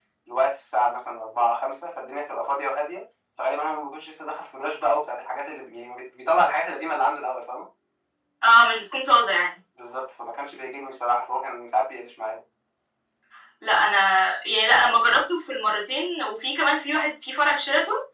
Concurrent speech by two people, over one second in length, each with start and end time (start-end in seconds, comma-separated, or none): none